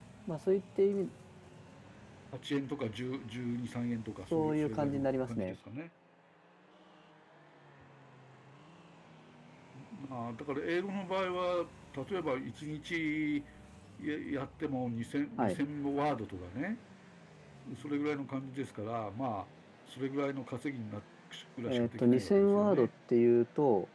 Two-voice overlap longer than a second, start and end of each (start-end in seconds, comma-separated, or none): 4.3-5.5, 21.7-22.9